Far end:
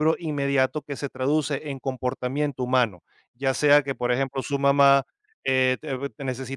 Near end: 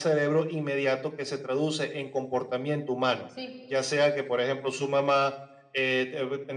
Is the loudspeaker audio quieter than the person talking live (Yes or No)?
No